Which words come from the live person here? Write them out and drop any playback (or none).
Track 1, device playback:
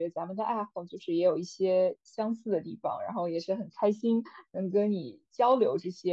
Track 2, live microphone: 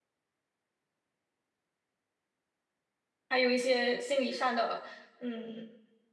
还有一些心理上的，嗯。